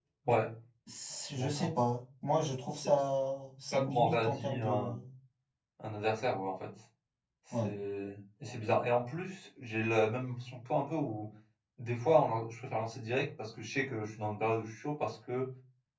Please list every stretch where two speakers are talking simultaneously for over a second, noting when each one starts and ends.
3.7-5.0

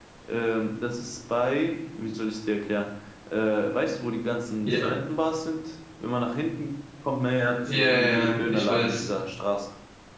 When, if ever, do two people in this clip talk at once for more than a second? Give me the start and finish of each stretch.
7.6-9.1

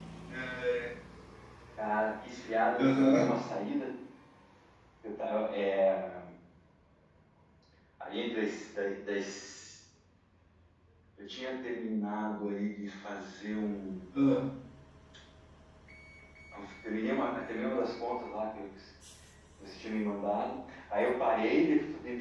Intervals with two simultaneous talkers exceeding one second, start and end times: none

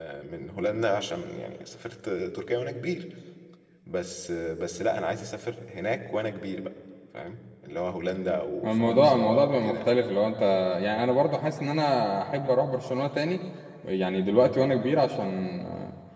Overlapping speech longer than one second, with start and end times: 8.7-9.9

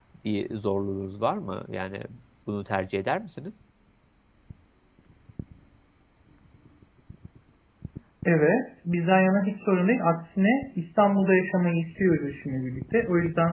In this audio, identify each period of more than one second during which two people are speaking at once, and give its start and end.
none

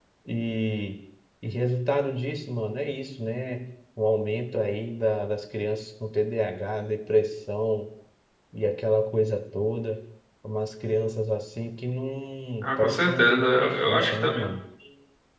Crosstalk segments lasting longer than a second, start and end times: 12.6-14.5

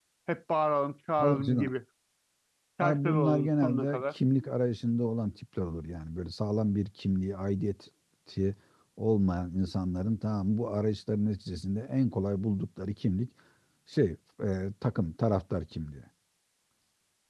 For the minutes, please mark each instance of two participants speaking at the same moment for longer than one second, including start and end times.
2.8-4.0

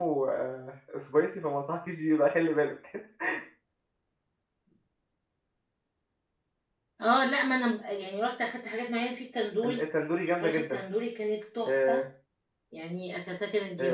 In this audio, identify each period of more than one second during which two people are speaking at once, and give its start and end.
none

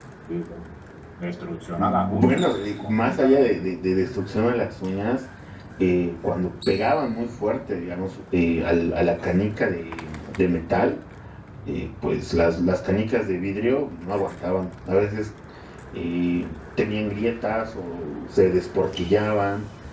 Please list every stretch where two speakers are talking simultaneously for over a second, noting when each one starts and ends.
1.8-3.7

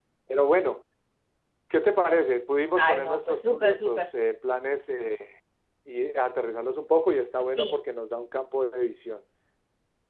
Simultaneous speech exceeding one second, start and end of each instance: 2.8-4.1

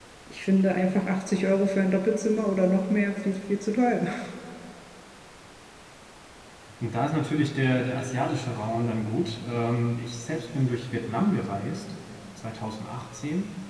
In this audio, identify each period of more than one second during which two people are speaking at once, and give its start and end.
none

